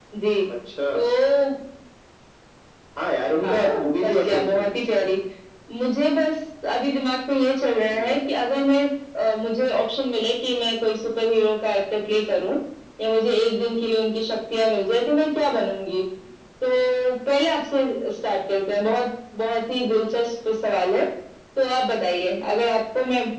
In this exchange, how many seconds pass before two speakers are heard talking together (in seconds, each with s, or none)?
3.4 s